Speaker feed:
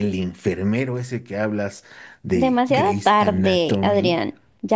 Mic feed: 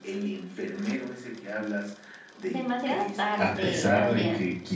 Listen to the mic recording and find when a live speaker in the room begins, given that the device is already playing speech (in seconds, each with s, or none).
3.4 s